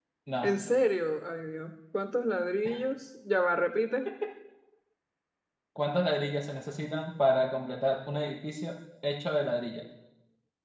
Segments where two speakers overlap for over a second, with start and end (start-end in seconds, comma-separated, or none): none